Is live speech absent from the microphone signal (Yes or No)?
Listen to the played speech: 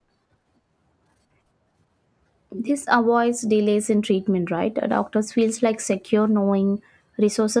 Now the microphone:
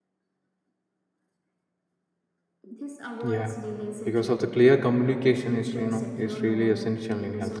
No